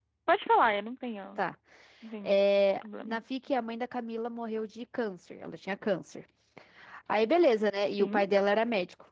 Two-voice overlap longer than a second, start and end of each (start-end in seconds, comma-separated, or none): none